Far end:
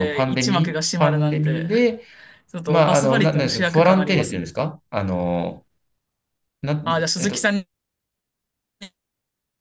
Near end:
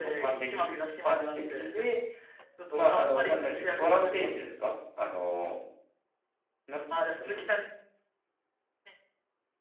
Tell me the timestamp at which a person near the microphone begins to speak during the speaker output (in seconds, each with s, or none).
none